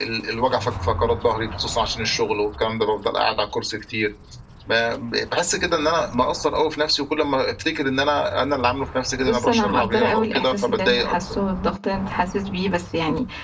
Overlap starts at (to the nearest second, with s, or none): 9 s